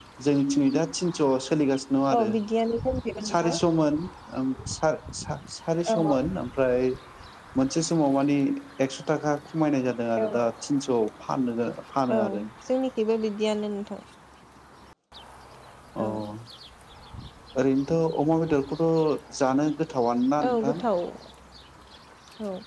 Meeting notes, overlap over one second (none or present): none